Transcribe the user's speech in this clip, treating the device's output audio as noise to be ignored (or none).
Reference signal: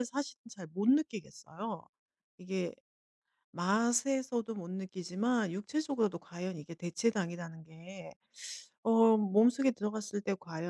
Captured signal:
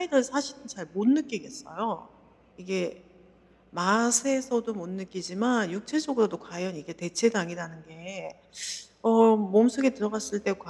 none